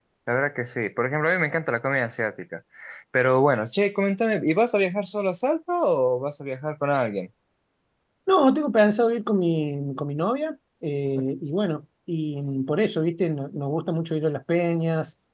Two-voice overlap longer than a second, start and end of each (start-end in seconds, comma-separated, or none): none